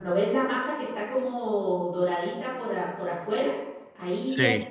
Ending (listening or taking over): listening